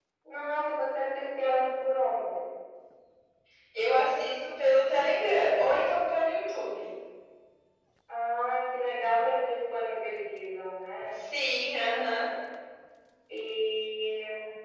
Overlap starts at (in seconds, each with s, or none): none